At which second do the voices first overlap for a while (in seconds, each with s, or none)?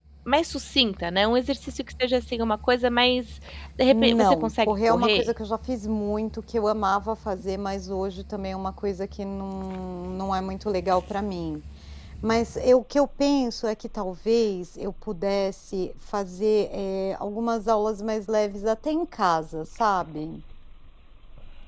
3.9 s